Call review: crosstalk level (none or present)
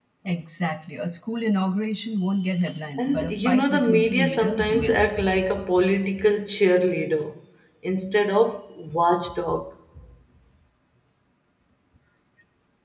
present